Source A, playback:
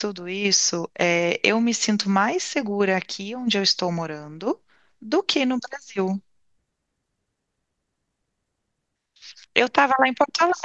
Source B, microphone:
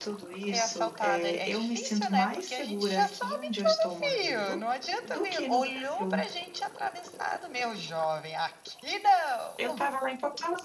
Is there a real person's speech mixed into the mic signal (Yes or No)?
Yes